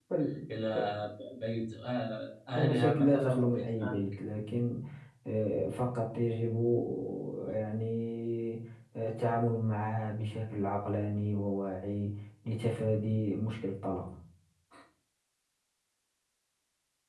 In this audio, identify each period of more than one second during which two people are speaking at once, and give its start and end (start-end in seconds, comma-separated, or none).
2.5-4.0